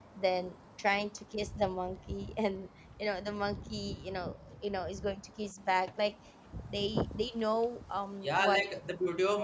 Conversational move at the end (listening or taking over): taking over